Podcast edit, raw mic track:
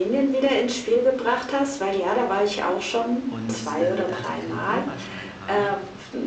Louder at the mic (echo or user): echo